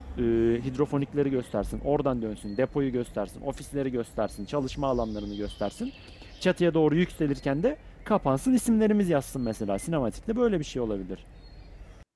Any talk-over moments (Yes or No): No